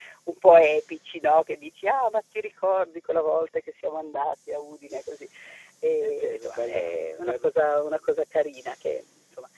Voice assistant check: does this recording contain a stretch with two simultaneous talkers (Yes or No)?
Yes